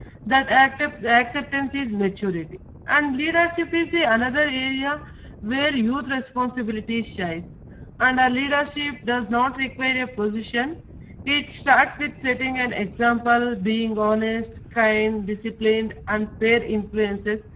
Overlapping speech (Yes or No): No